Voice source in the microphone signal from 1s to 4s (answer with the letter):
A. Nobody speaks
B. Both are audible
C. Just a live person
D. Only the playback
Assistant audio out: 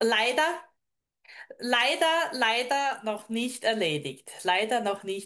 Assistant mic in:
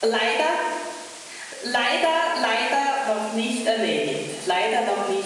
D